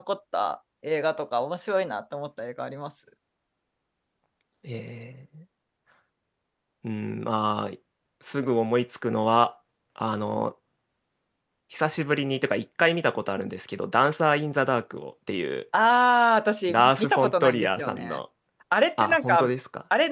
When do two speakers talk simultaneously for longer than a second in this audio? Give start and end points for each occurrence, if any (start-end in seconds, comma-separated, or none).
16.7-18.2